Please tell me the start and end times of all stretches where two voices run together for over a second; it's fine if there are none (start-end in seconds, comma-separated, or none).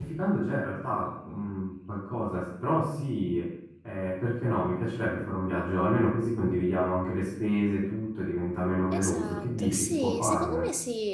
8.9-10.6